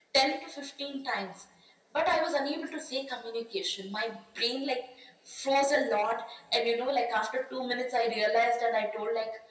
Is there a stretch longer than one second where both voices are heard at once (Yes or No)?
No